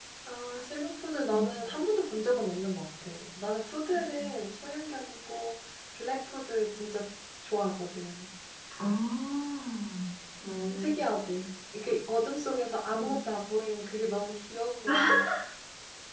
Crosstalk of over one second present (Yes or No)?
No